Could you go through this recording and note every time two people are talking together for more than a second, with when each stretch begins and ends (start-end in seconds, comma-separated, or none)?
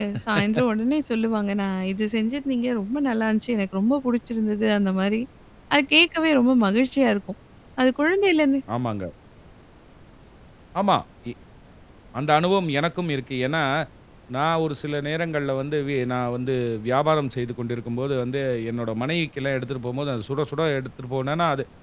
none